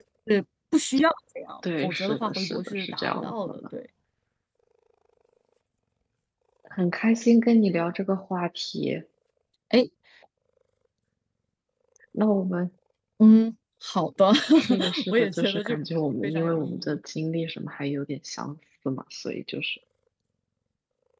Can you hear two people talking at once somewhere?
Yes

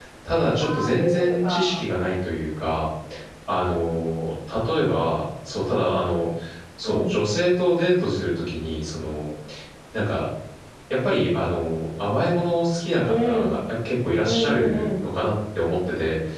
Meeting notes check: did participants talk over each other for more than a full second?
Yes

